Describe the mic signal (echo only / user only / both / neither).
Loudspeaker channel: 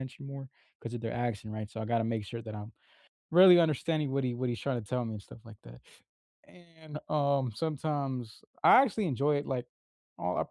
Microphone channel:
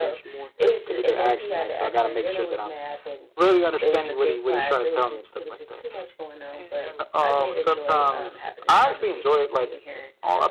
both